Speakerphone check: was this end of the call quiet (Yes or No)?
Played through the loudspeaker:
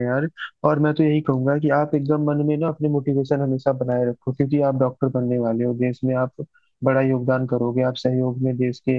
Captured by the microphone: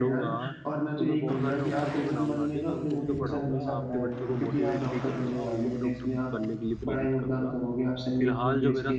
No